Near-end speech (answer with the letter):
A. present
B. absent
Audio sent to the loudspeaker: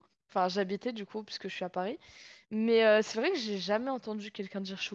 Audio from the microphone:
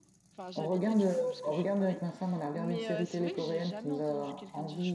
A